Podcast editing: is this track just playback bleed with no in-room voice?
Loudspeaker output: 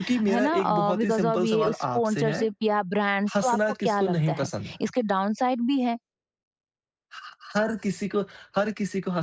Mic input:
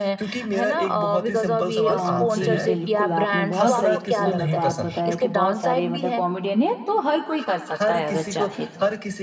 No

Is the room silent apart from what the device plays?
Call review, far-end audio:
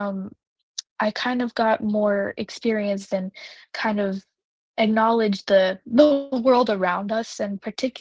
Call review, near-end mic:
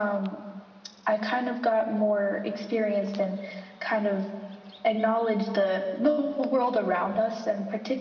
Yes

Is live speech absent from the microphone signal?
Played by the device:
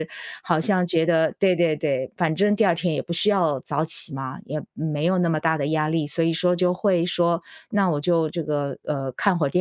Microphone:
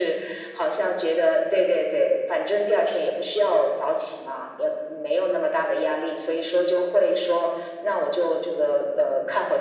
Yes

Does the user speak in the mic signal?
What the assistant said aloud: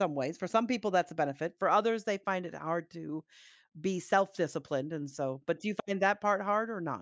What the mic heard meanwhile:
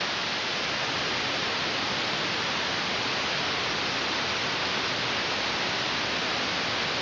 No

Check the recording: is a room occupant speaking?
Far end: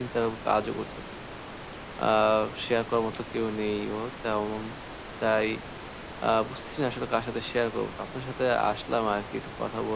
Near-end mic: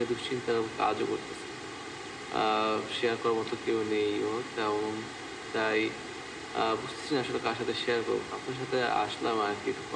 No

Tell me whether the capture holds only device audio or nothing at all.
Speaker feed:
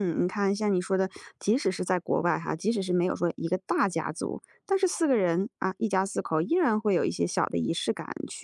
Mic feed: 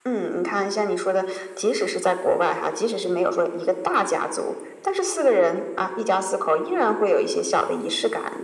Yes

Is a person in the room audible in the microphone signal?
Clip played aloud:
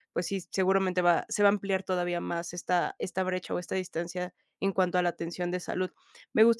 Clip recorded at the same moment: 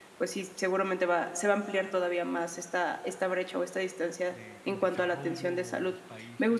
Yes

